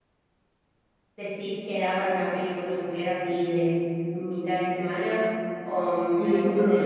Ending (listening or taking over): taking over